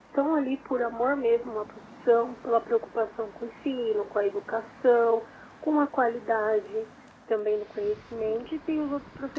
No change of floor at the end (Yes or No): Yes